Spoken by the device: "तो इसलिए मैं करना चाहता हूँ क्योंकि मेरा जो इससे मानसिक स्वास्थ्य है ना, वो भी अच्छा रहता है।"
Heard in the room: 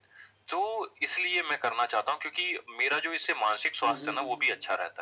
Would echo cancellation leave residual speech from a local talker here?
Yes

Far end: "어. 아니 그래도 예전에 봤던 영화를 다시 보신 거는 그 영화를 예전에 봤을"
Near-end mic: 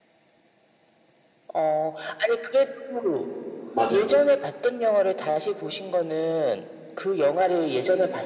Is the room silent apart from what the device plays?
No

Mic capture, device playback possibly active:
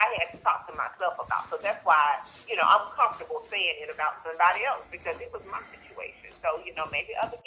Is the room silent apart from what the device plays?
Yes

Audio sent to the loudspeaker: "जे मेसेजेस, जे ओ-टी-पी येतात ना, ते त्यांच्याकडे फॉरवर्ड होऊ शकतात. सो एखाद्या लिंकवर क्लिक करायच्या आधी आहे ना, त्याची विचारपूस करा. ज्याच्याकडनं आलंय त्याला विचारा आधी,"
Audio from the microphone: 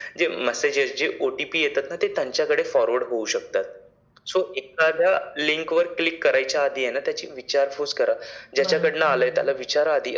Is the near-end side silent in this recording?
No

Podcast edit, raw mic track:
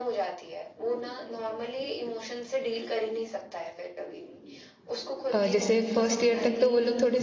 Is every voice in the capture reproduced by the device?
No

